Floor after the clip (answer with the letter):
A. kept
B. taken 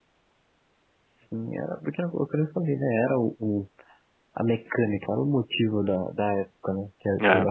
A